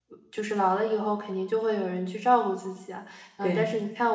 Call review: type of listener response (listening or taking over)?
listening